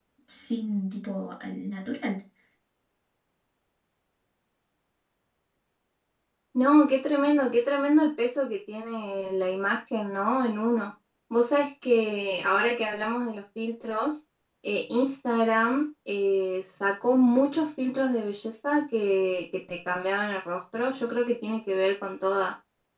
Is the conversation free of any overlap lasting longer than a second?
Yes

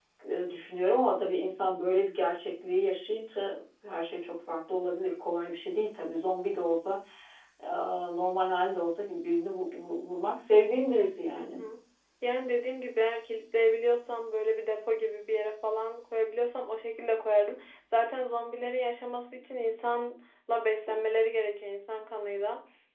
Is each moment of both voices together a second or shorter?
Yes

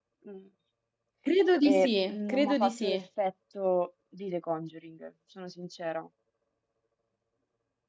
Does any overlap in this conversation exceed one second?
Yes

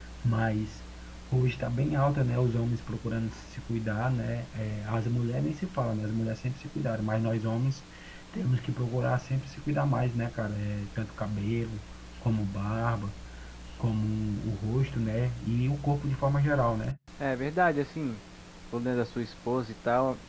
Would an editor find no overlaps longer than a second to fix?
Yes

